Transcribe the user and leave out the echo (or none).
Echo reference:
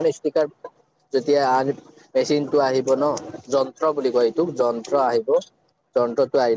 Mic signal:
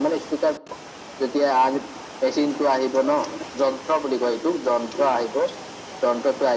none